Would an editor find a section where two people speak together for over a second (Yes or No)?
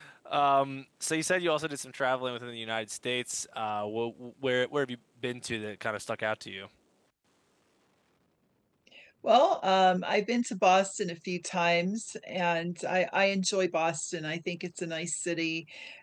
No